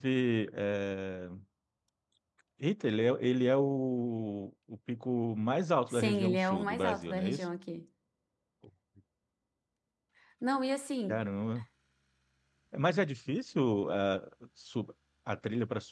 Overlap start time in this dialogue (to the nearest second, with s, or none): 6 s